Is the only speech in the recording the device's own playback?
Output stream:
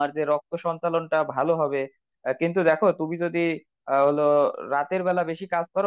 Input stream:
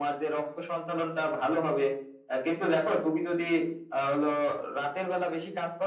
Yes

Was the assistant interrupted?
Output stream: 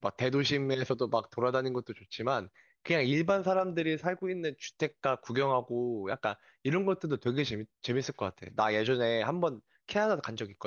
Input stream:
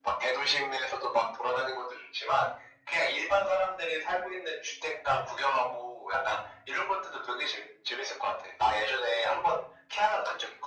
No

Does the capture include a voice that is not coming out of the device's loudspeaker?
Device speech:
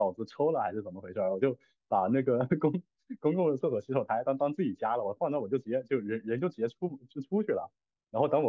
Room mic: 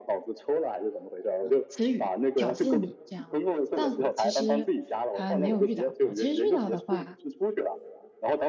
Yes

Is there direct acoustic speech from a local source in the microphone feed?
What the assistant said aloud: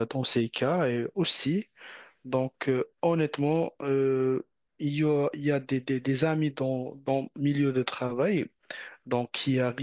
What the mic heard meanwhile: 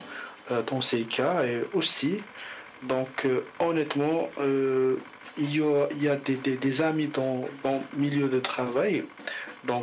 No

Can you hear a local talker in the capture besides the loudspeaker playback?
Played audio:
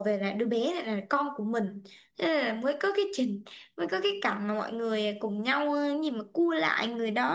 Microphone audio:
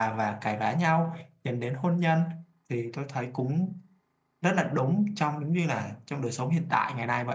Yes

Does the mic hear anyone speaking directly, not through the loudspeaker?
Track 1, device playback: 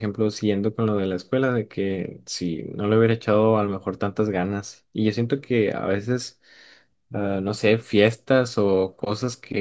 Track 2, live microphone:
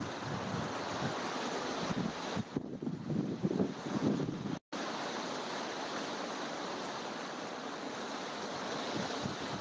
No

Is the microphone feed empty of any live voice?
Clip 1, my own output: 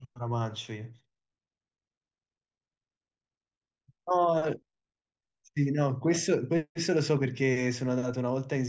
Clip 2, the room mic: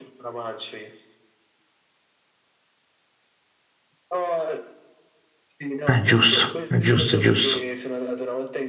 No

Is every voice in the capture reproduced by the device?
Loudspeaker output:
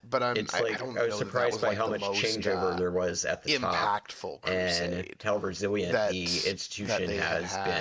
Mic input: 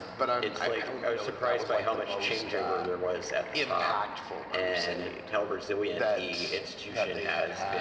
Yes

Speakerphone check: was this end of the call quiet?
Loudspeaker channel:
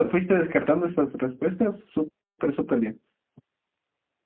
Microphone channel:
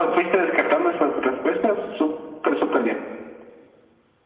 Yes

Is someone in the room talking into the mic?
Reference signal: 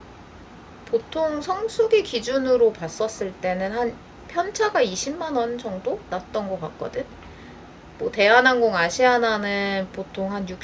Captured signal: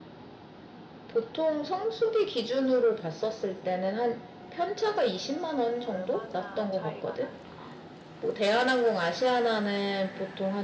Yes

